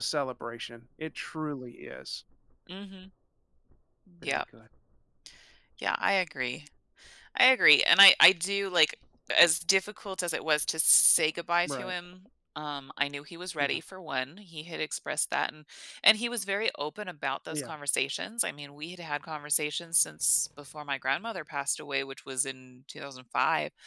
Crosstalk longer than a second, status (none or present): none